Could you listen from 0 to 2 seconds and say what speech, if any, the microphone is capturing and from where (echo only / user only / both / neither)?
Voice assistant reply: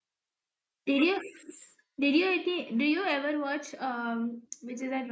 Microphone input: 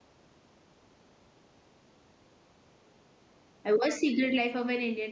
neither